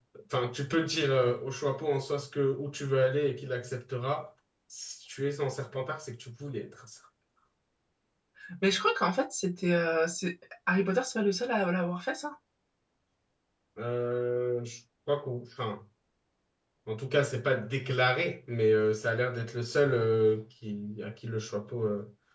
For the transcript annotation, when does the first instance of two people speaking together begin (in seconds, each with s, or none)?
none